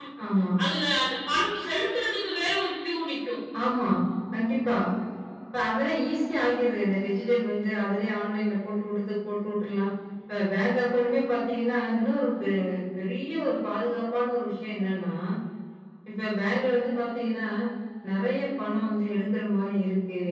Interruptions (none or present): none